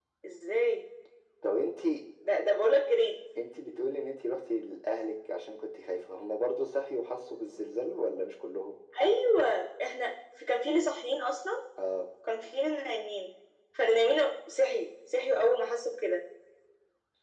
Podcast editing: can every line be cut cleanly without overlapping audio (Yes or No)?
Yes